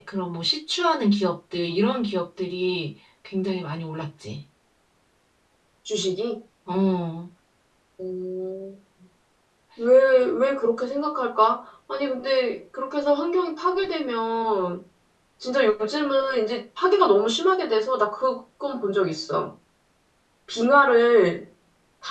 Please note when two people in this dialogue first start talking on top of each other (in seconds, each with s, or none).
none